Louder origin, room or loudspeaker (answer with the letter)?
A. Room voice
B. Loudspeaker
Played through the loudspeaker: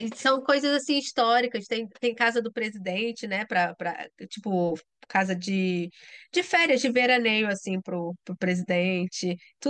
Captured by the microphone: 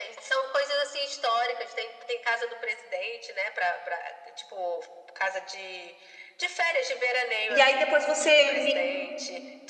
A